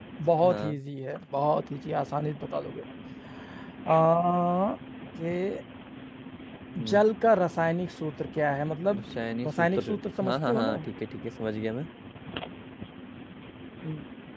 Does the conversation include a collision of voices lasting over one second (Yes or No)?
Yes